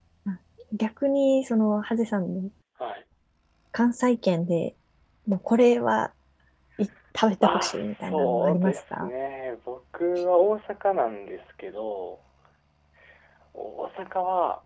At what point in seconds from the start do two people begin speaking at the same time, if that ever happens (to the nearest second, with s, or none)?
7 s